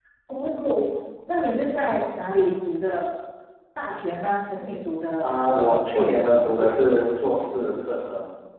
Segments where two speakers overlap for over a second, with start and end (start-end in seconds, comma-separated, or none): 5.2-6.8